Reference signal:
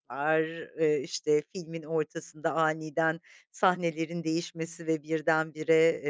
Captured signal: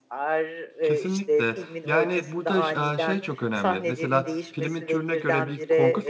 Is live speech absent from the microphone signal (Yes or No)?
No